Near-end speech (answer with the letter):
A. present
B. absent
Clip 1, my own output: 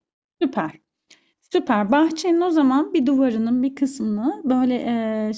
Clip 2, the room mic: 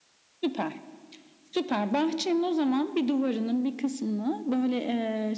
B